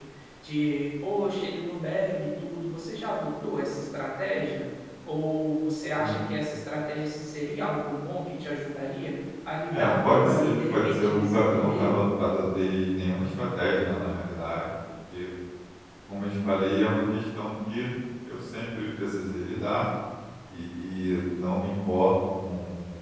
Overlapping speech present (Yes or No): Yes